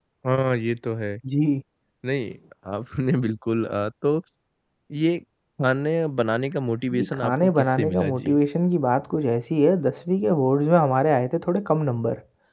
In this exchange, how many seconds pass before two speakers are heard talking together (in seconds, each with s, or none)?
6.9 s